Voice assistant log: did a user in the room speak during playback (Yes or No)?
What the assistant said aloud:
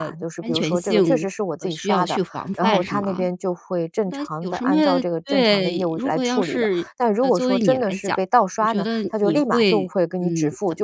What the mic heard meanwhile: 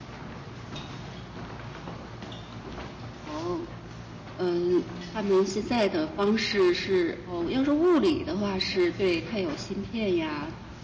Yes